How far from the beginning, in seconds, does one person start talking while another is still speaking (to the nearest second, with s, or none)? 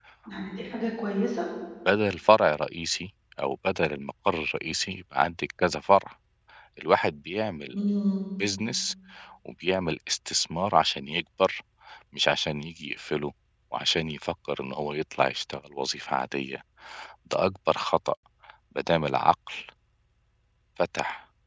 none